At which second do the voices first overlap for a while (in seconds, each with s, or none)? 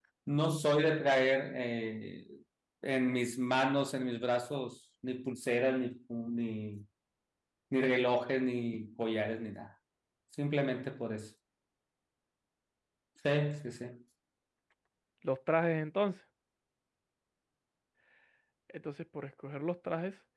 none